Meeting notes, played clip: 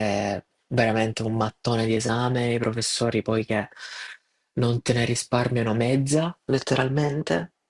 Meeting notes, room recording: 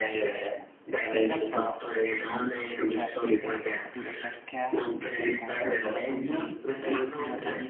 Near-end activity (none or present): present